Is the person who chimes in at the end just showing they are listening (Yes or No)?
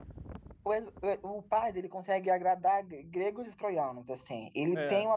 Yes